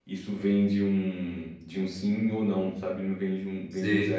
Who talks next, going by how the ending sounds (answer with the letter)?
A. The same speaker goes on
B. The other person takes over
A